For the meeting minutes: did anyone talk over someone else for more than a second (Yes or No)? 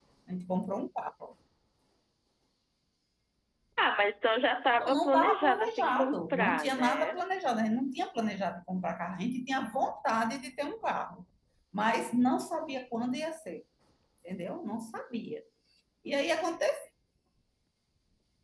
Yes